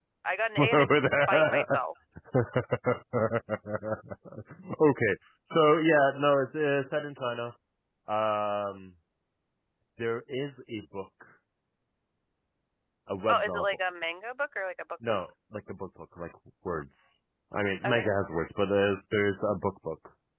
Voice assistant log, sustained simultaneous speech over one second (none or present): present